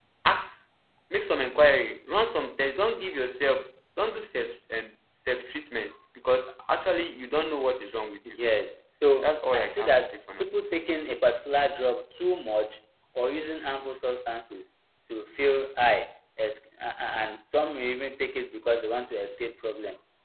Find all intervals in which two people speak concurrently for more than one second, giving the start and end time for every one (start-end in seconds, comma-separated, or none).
9.2-10.5